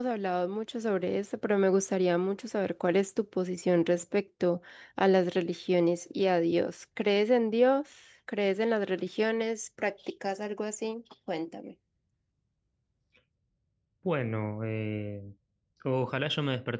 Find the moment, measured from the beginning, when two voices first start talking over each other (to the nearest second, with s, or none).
none